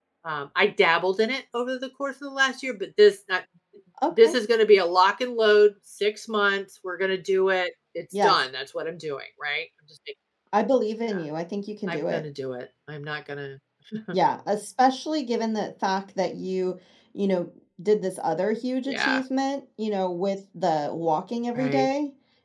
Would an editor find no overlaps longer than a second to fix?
Yes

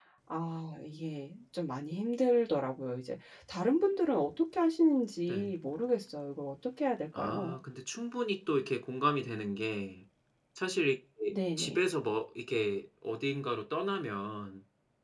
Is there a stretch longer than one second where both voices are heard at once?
No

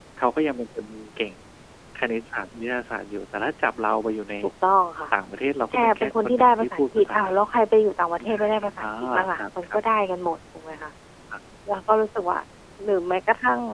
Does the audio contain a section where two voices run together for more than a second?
Yes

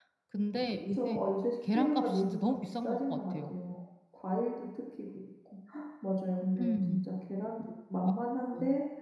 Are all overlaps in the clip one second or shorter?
No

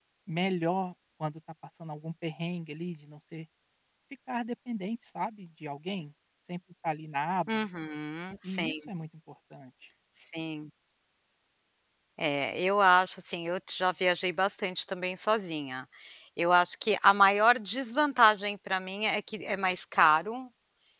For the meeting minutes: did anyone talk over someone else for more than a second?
No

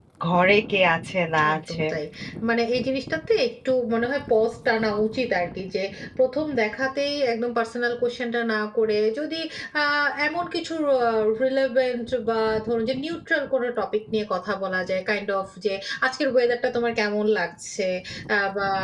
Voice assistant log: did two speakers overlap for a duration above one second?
No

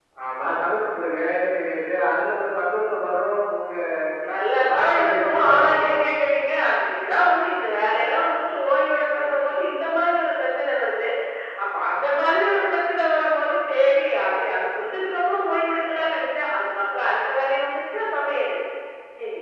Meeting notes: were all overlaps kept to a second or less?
No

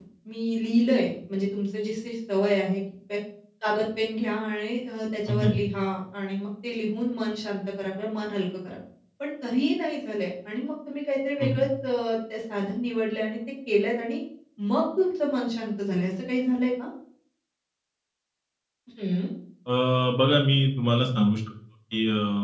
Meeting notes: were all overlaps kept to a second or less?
Yes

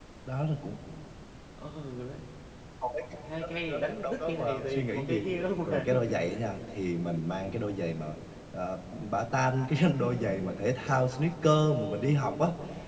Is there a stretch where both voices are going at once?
Yes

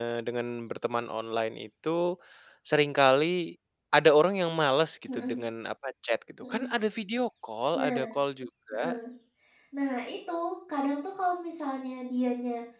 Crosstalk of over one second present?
No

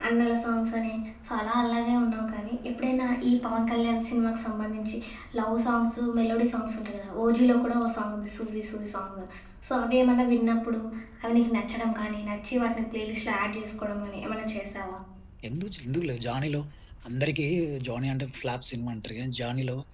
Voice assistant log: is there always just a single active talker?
Yes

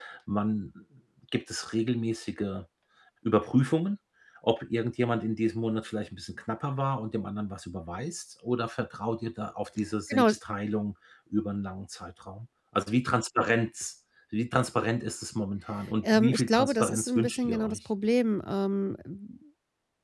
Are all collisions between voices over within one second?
No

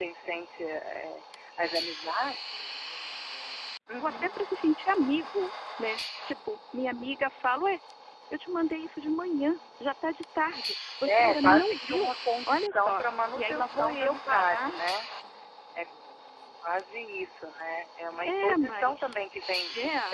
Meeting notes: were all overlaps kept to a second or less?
No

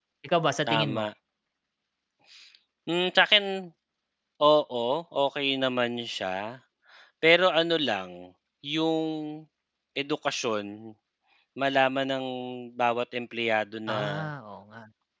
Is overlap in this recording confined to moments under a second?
Yes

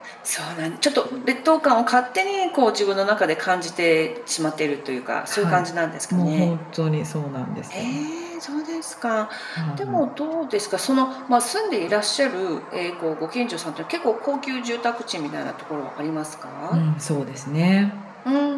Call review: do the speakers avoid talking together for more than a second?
Yes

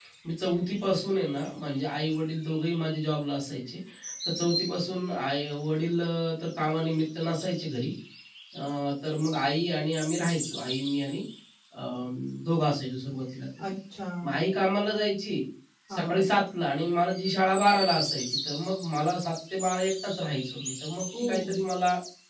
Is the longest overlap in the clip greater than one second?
No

